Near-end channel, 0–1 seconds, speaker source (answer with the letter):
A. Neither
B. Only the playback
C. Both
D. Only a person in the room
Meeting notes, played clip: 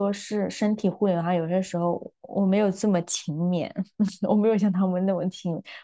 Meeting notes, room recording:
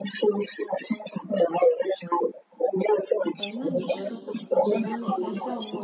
B